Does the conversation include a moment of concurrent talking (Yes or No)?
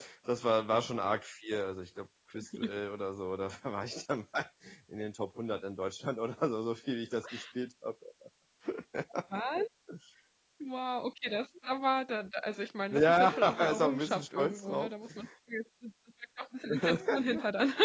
Yes